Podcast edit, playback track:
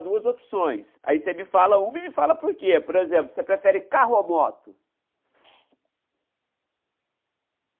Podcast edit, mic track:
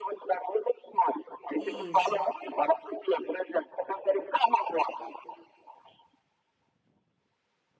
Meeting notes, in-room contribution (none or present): present